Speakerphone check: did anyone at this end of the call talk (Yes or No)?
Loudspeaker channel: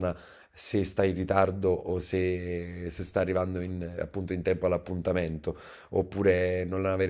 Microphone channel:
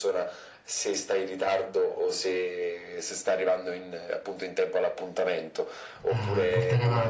Yes